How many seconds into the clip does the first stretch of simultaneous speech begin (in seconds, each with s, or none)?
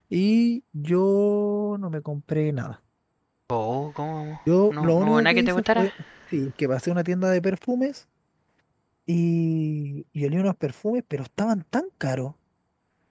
4.7 s